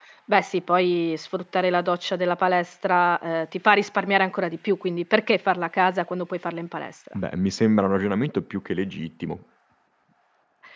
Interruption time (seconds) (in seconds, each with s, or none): none